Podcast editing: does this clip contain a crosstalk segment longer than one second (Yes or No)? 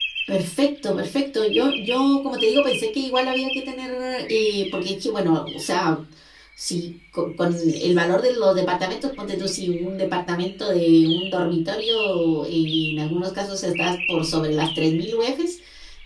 No